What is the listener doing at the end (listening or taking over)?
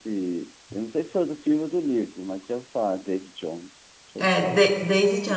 taking over